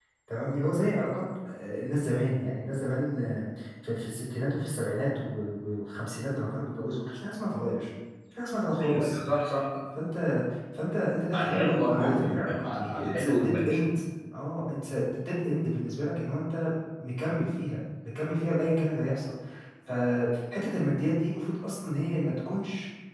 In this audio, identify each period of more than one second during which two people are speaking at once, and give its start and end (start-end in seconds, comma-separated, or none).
11.3-13.8